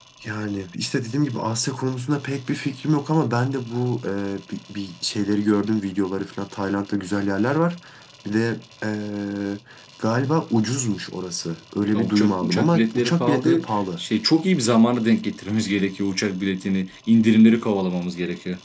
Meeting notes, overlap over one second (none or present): present